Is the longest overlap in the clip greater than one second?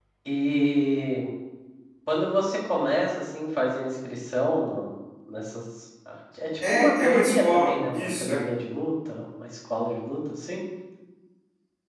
Yes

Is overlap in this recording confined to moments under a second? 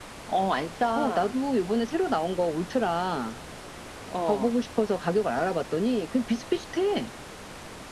Yes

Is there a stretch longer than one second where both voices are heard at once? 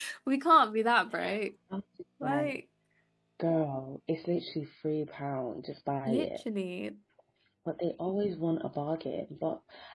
No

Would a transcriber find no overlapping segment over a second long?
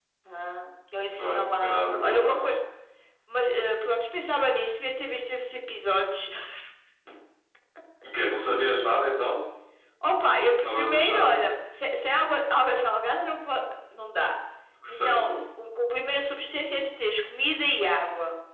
No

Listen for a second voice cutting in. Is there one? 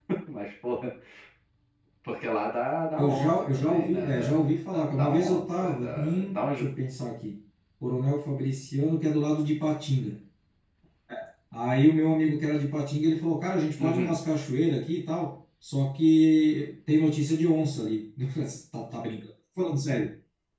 Yes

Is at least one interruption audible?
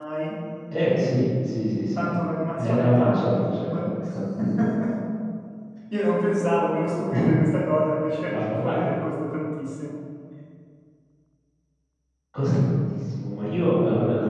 Yes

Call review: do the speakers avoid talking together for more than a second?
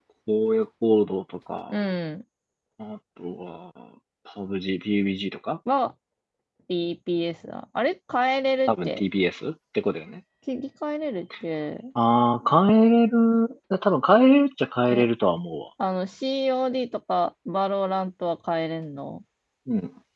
Yes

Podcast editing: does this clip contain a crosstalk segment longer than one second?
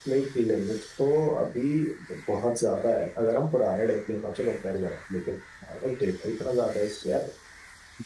No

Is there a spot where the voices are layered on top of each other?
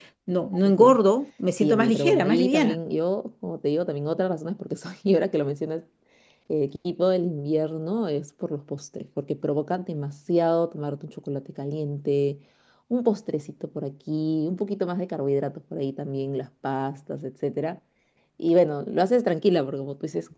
Yes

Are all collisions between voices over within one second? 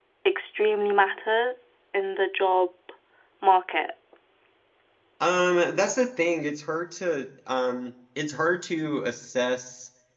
Yes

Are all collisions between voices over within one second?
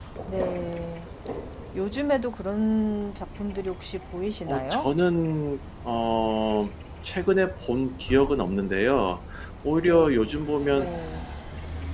Yes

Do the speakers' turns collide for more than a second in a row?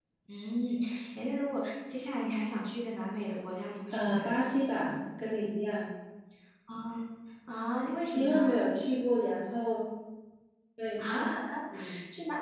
No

